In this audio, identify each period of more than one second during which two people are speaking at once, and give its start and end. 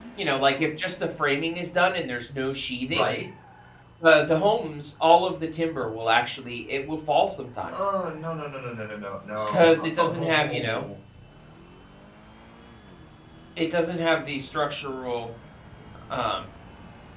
9.5-10.8

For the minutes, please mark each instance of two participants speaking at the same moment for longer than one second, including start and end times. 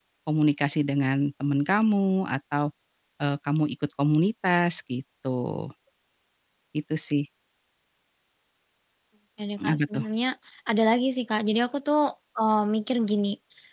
none

